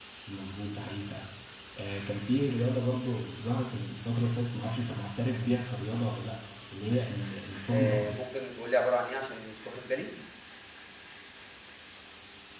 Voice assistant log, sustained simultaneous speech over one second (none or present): none